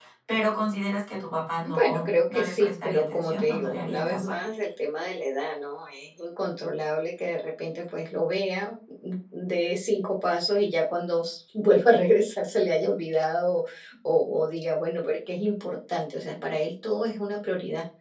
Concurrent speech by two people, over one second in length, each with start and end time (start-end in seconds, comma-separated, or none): 1.7-4.3